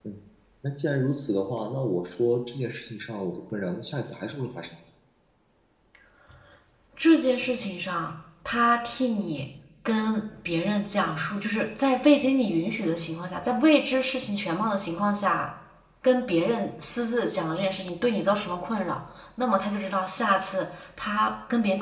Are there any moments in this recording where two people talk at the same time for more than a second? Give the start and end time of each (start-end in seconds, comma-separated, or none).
none